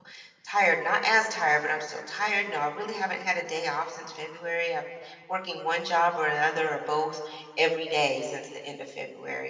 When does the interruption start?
none

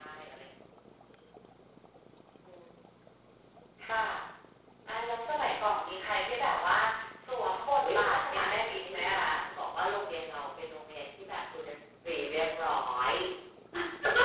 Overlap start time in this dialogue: 8 s

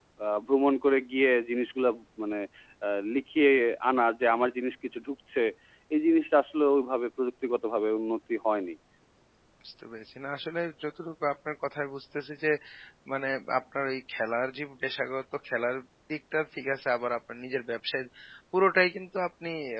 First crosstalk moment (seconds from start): none

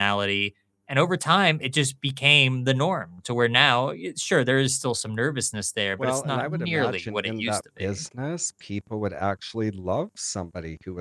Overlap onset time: 6 s

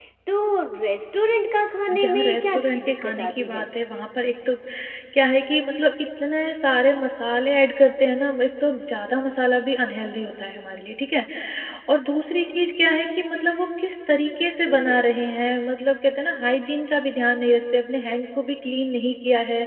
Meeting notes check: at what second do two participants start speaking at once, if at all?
2 s

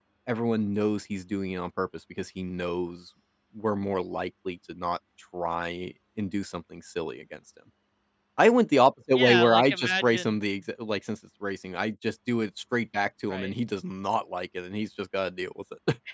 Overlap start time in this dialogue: 9 s

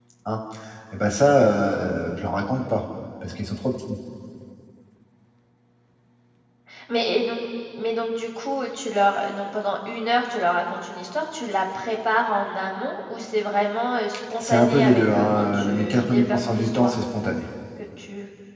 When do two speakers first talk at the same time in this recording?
14 s

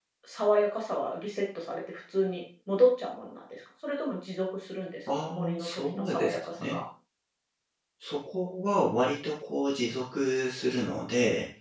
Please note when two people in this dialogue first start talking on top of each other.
5 s

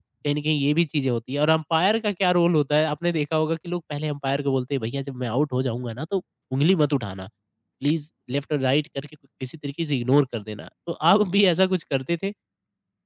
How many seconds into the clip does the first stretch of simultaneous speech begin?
none

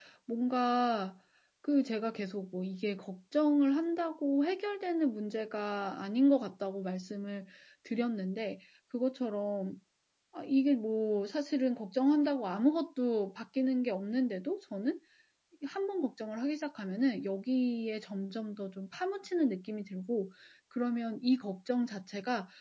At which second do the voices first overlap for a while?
none

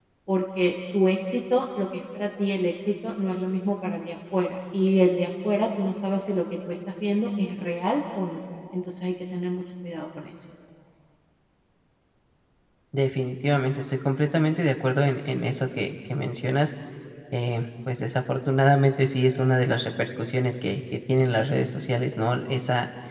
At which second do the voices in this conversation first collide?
none

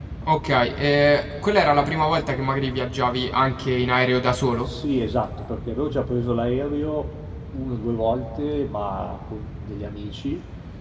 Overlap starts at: none

